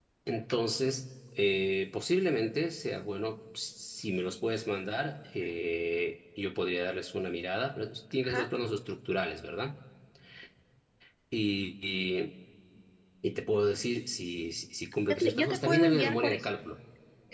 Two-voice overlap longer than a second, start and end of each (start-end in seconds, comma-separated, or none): 15.1-16.5